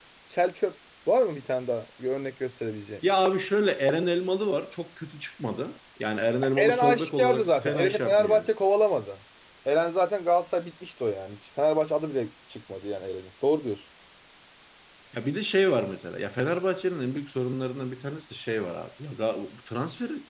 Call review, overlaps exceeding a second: present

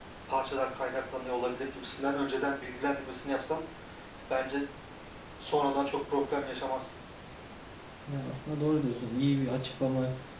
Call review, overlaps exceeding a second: none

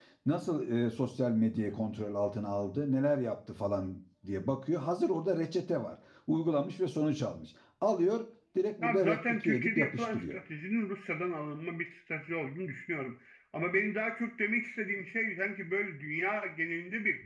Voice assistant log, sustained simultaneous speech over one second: present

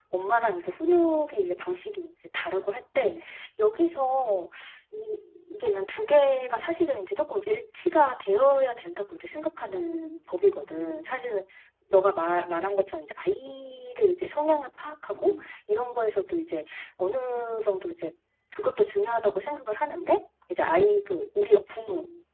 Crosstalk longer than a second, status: none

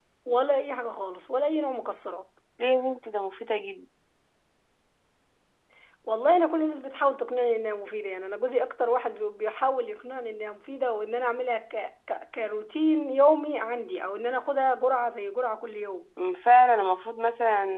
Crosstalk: none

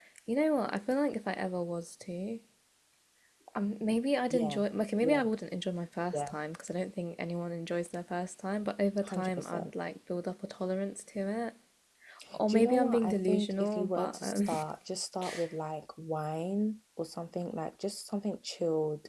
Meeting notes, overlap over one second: present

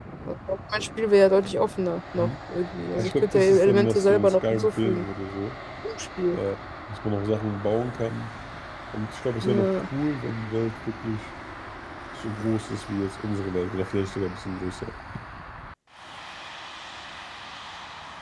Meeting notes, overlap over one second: present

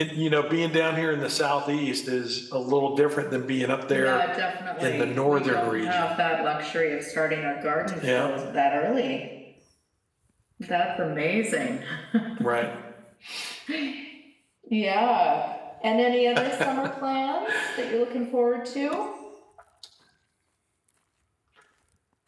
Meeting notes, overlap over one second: present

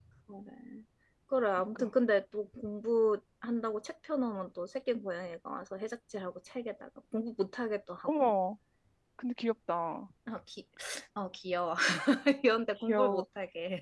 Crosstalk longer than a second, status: none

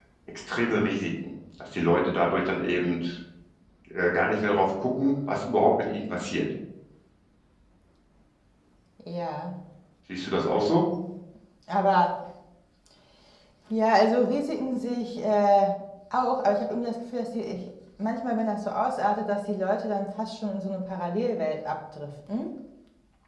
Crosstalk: none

